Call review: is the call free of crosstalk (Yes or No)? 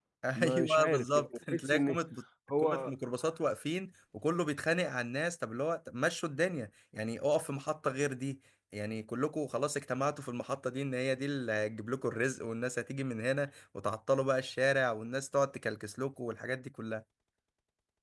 No